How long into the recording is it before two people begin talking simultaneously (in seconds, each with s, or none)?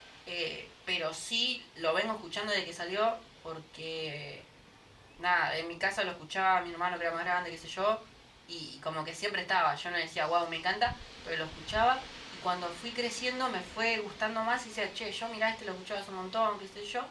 none